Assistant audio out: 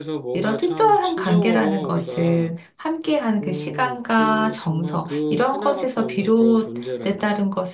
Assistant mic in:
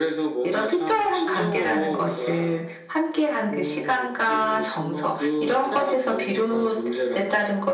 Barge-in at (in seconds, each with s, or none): none